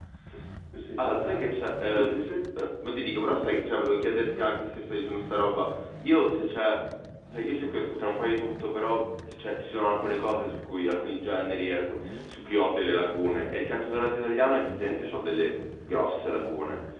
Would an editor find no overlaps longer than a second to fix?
No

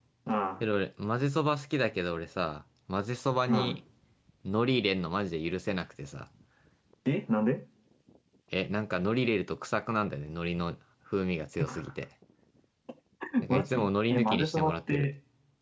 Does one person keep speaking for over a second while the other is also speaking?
Yes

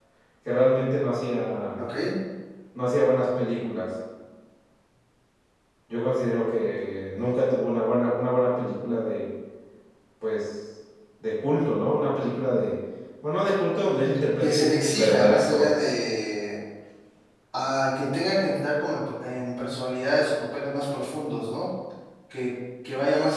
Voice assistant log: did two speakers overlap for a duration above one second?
Yes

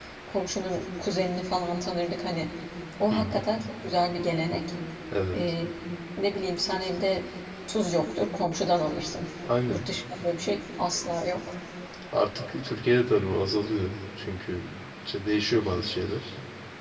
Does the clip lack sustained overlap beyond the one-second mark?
Yes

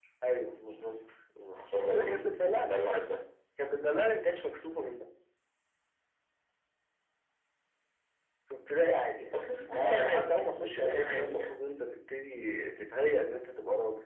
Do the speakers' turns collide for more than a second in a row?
Yes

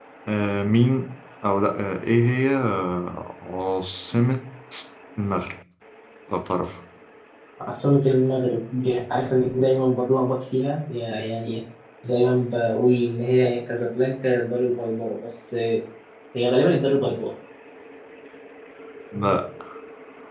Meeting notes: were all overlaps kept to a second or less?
Yes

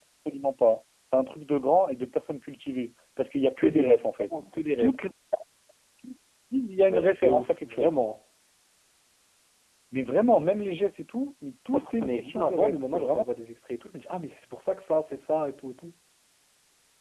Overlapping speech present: Yes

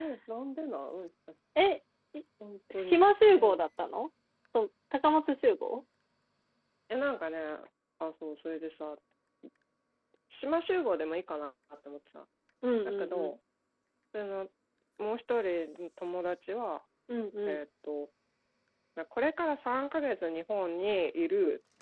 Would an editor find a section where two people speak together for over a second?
No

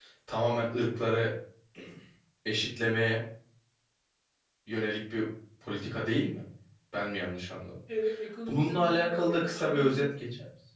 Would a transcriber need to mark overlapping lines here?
Yes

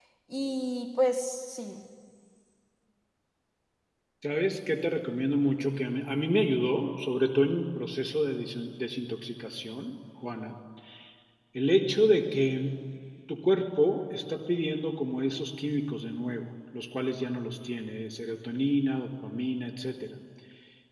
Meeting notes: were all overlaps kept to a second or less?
Yes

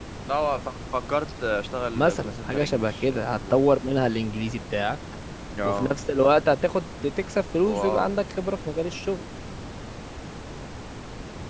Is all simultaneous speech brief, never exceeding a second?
No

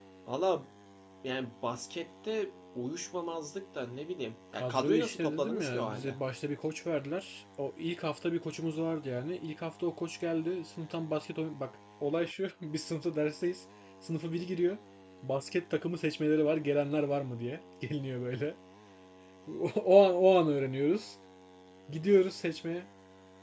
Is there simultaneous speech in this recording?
Yes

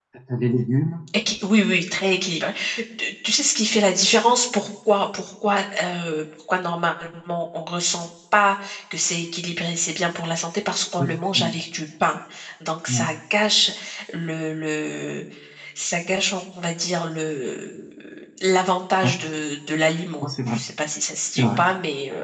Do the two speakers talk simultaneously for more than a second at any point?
No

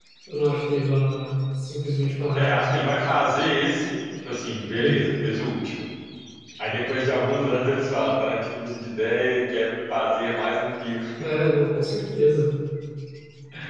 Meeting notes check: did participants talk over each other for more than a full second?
No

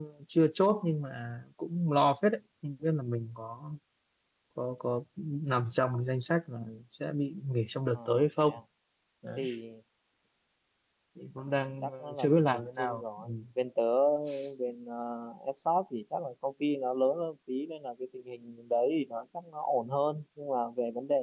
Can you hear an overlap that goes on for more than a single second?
Yes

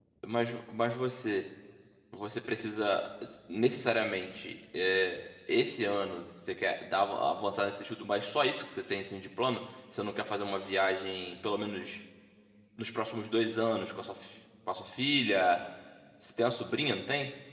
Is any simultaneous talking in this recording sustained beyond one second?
No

